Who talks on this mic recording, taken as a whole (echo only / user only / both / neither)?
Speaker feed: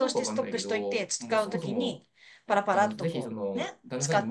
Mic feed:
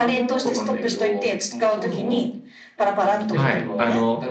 both